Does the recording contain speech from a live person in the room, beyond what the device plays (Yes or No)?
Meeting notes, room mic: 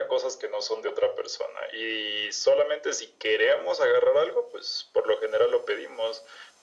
No